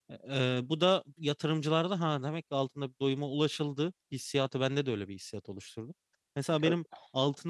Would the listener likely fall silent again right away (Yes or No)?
Yes